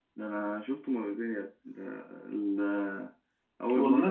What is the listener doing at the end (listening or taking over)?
listening